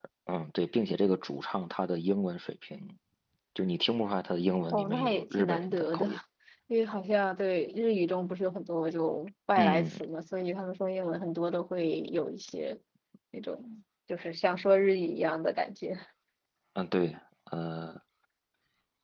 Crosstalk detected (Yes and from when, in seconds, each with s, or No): Yes, from 4.7 s